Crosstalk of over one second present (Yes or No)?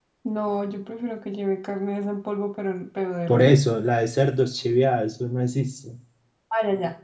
No